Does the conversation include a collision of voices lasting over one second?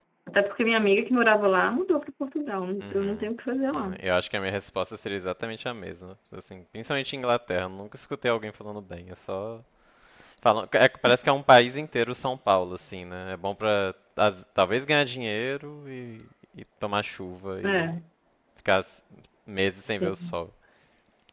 No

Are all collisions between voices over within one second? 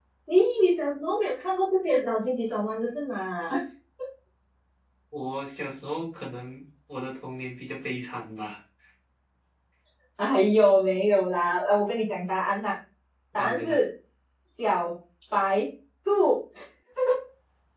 Yes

